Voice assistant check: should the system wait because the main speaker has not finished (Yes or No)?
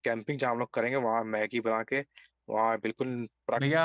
No